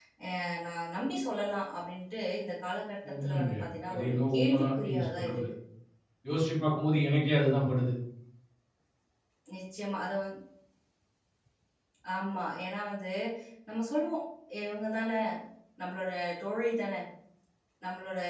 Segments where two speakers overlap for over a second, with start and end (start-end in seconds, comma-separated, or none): 3.9-5.5